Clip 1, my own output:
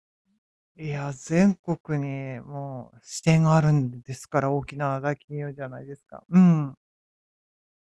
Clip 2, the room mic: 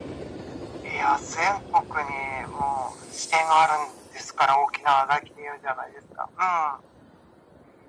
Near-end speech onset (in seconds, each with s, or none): none